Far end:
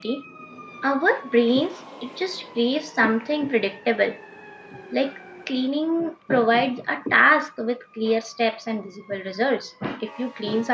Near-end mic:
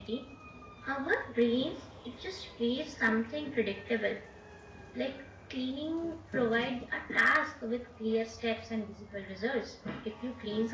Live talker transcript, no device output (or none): none